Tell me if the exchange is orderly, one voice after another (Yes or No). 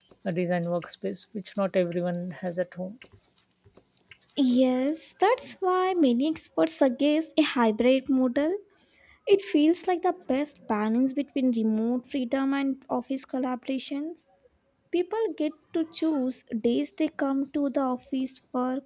Yes